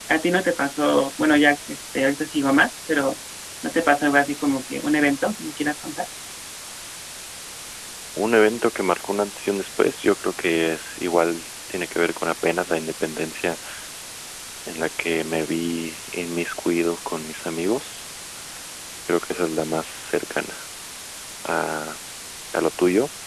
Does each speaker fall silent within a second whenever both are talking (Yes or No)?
Yes